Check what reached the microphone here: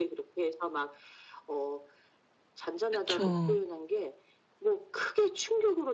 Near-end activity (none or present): present